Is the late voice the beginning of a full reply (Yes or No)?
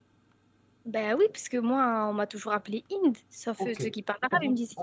Yes